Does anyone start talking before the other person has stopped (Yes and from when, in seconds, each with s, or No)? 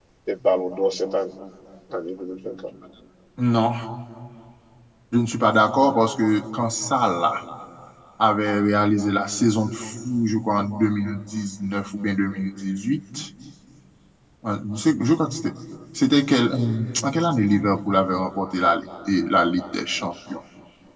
No